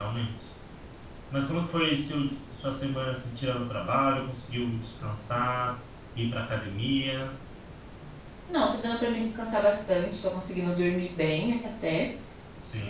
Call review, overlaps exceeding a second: none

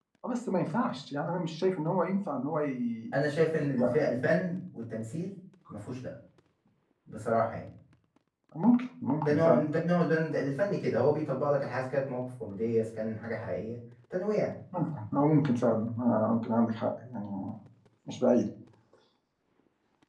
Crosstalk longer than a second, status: none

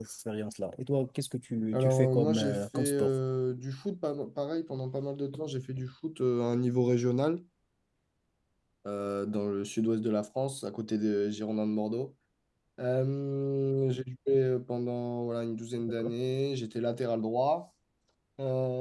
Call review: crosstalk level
present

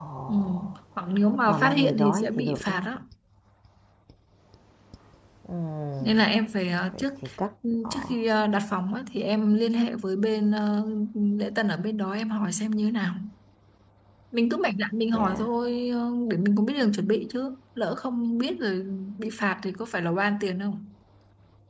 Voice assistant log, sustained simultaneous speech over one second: present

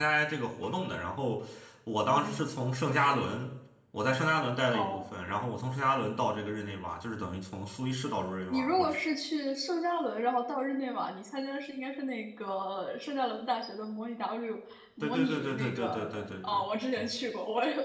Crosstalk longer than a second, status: present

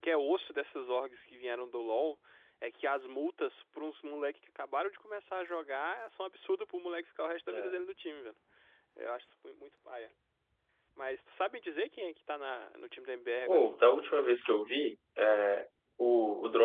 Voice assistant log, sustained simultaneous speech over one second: none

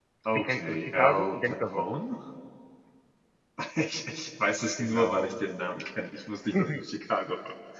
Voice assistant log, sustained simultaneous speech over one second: present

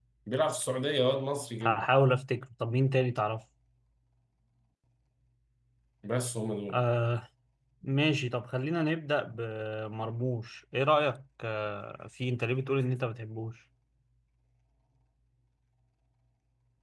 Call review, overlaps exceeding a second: none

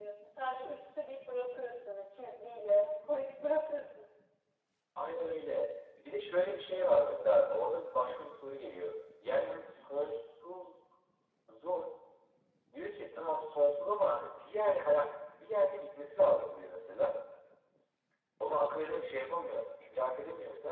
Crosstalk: none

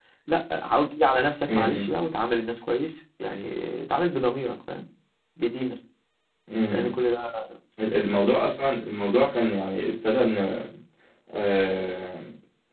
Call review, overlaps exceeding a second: none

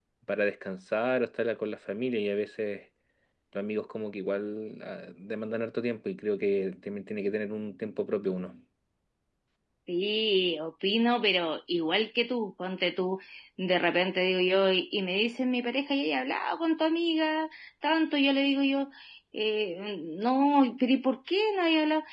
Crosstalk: none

